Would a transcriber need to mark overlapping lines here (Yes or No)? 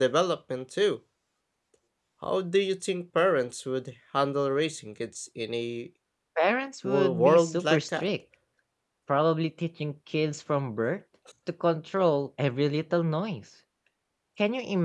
Yes